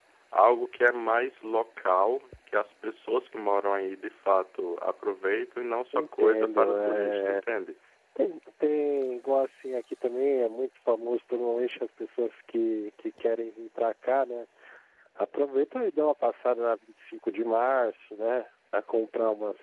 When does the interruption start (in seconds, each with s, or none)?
5.9 s